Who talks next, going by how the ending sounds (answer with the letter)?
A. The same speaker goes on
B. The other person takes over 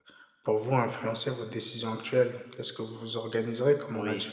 A